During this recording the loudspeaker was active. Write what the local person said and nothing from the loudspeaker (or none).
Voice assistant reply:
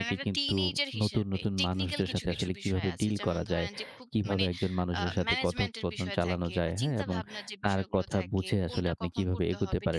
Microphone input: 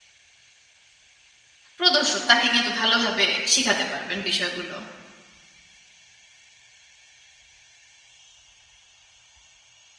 প্রদর্শক তাকে কিন্তু ভালোভাবে শিখাতে পারবেন বিষয়গুলো।